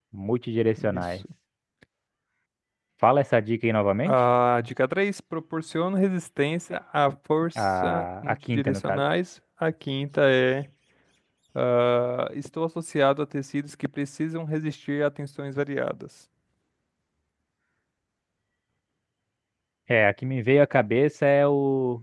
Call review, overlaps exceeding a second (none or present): present